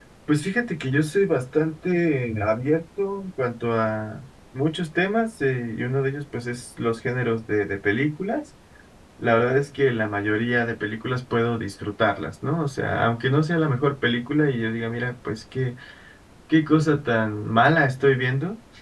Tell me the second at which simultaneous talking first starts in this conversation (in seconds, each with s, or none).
none